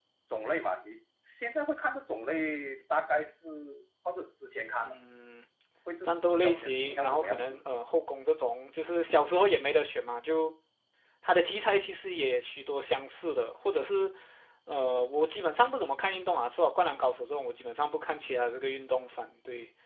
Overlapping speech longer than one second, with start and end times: 6.0-7.6

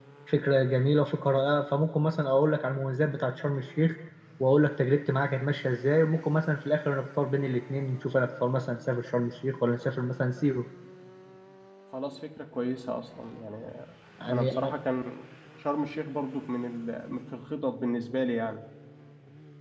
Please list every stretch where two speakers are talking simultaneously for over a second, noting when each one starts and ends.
none

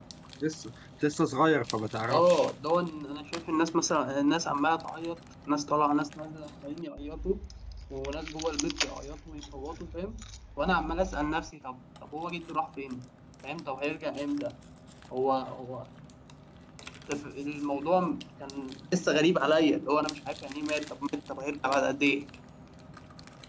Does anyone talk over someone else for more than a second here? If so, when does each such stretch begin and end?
none

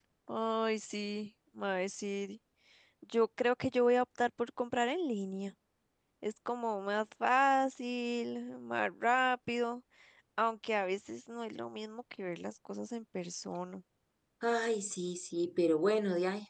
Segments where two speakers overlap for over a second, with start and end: none

